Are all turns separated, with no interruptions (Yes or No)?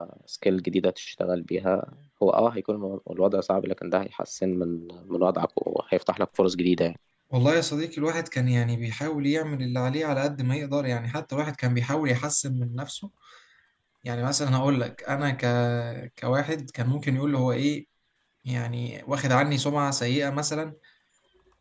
Yes